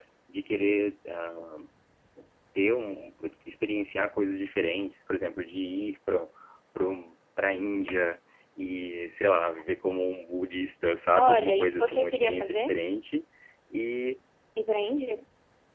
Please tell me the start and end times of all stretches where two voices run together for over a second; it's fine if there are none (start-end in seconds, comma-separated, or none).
11.2-12.7